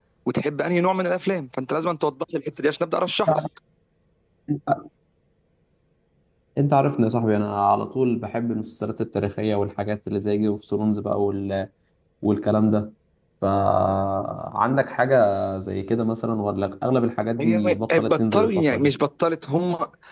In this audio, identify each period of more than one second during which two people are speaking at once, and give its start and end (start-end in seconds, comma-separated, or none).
17.4-18.9